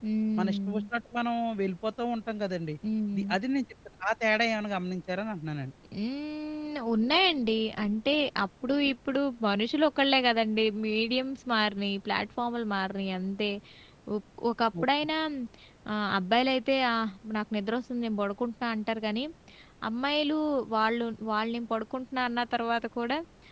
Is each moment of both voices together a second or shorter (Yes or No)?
Yes